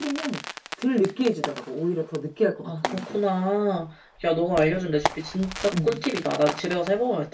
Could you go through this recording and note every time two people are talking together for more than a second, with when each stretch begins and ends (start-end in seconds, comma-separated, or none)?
none